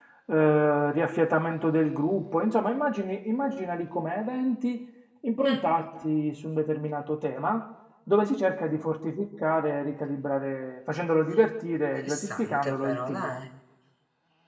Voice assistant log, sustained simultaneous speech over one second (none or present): present